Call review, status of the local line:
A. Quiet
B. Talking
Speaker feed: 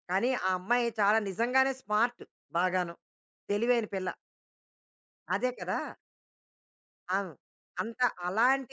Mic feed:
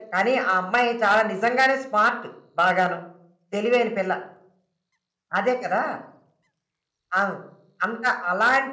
A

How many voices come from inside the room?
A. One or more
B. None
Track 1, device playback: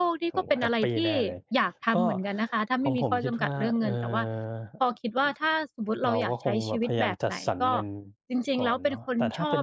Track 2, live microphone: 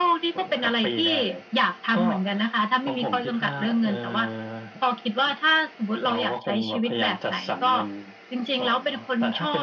B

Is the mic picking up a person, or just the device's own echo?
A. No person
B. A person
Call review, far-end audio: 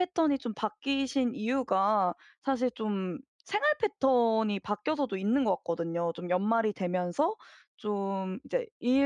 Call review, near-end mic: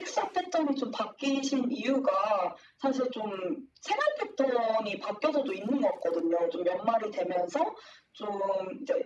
A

